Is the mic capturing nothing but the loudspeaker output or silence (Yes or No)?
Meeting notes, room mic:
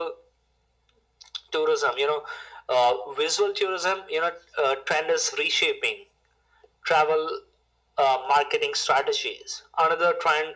Yes